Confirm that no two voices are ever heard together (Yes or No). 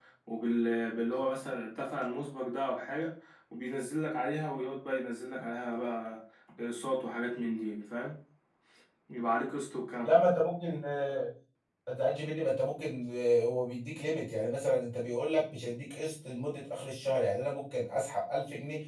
Yes